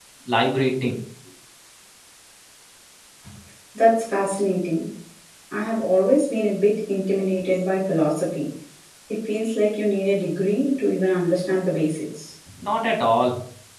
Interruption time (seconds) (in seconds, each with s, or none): none